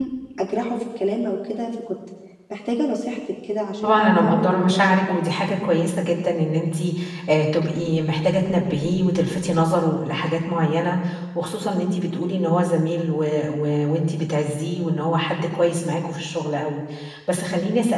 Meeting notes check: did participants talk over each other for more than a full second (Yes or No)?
Yes